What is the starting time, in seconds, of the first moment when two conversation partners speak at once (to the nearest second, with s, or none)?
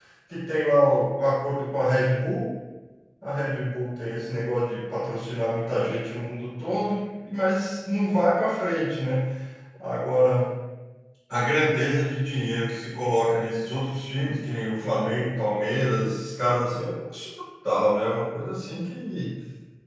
none